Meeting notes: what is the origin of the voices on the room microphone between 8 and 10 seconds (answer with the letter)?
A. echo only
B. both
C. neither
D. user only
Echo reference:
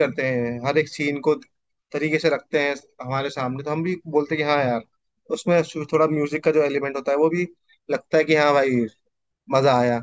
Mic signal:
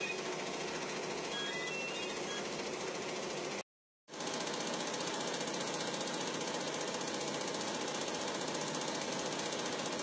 C